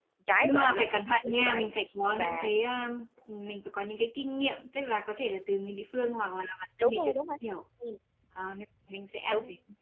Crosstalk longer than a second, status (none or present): present